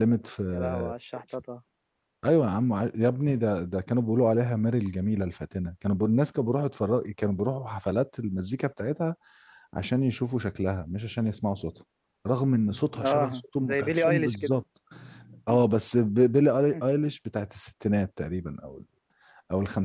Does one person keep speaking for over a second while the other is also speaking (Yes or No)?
Yes